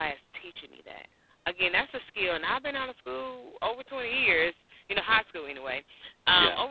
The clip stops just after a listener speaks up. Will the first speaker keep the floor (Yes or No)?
Yes